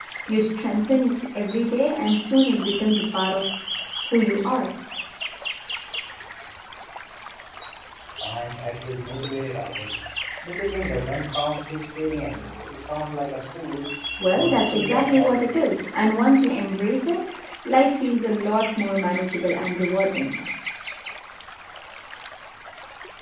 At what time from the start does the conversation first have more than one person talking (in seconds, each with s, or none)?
14.3 s